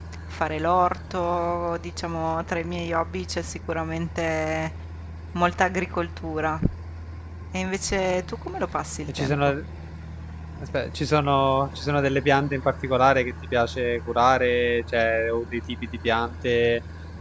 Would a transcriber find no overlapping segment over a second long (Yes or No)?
Yes